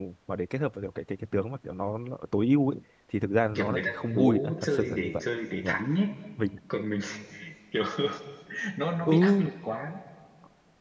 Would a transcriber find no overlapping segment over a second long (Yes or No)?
No